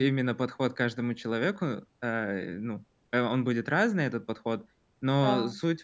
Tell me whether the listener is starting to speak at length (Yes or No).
No